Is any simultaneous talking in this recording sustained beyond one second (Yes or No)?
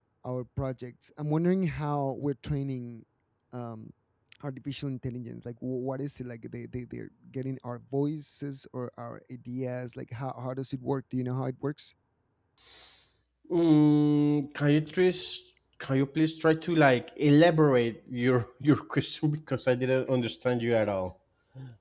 No